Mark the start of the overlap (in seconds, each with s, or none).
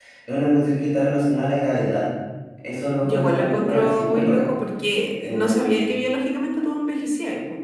3.0 s